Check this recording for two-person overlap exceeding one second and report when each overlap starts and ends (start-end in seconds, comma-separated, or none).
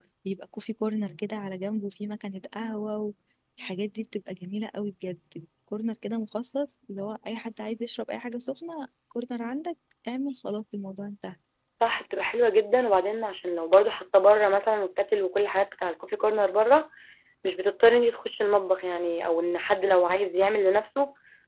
none